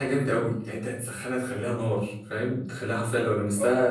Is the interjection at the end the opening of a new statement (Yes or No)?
No